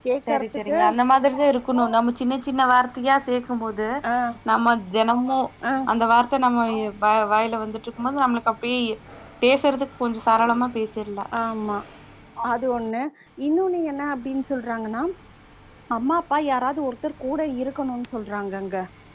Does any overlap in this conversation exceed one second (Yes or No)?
No